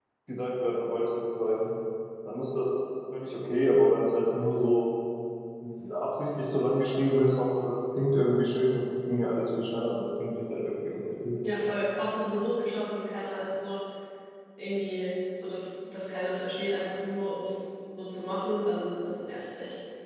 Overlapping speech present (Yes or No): No